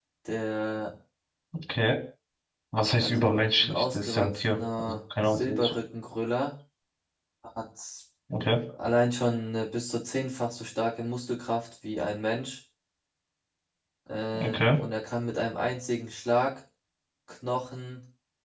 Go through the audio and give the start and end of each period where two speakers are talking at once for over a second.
3.0-5.8

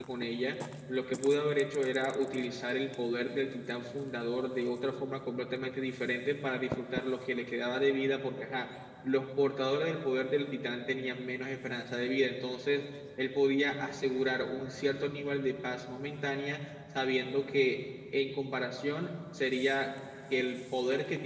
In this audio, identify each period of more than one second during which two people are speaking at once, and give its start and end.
none

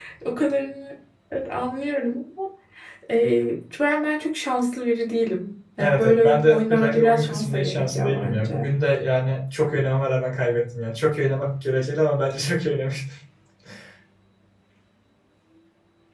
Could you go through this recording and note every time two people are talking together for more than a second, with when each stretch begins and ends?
5.8-8.6

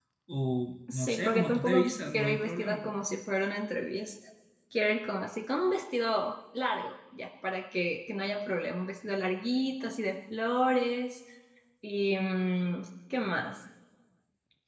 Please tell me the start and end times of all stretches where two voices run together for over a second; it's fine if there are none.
0.9-2.9

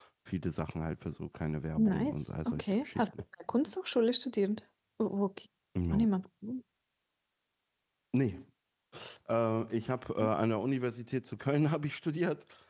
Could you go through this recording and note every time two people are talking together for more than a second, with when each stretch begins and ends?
1.8-3.0

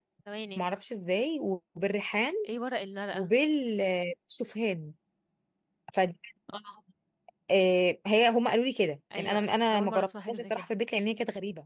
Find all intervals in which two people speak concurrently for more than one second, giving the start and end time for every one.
9.2-10.7

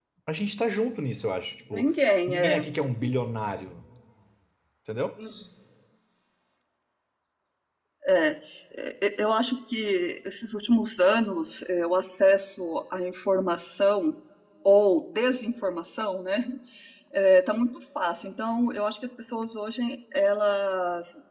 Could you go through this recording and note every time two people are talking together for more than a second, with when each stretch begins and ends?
none

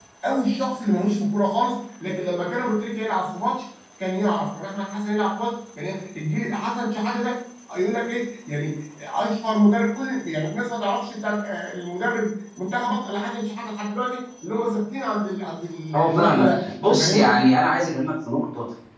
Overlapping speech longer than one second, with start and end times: 15.9-17.4

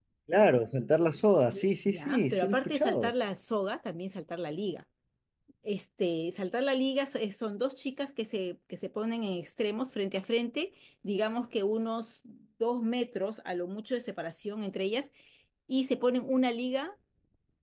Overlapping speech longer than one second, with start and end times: 1.9-3.1

